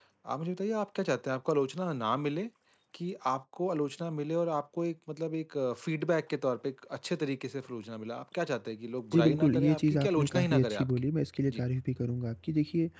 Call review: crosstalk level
present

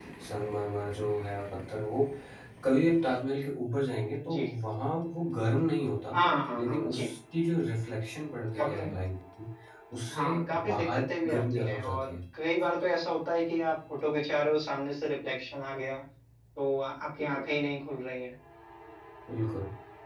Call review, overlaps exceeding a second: present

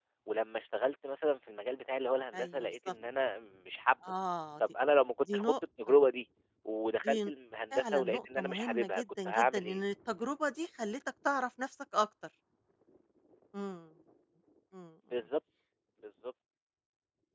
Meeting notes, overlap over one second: present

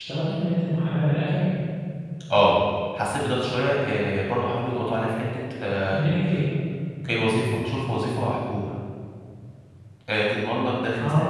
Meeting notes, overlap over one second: none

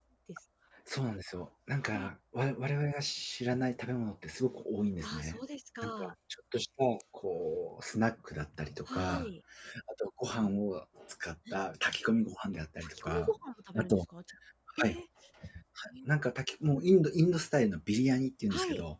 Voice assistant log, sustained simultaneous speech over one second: none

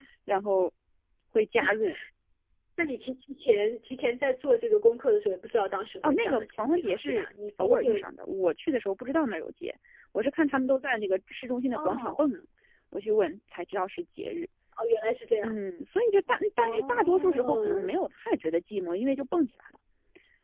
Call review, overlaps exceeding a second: present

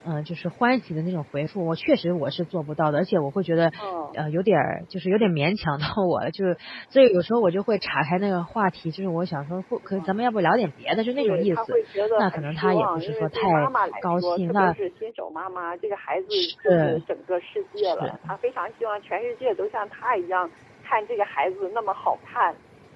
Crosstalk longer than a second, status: present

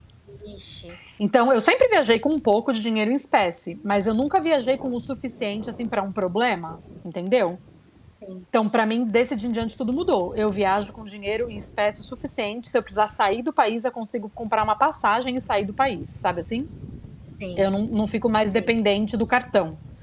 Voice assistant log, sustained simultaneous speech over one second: none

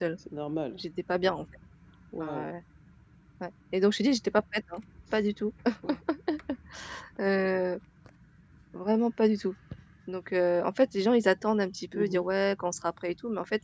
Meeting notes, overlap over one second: none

